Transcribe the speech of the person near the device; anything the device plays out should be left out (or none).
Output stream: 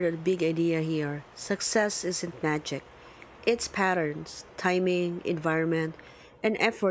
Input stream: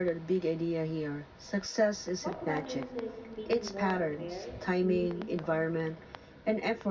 What matters is being more aware, moving forward.